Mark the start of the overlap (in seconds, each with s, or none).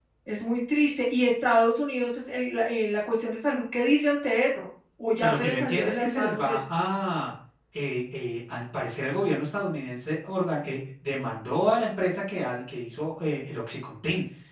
5.2 s